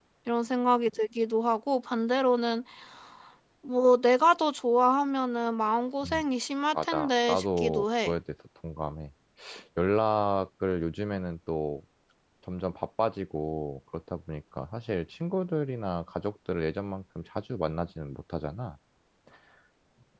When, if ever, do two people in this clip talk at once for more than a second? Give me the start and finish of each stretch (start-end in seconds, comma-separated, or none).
6.8-8.1